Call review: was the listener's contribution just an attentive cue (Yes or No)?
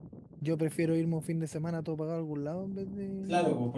No